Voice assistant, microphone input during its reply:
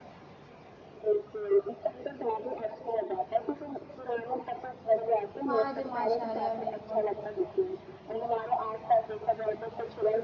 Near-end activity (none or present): present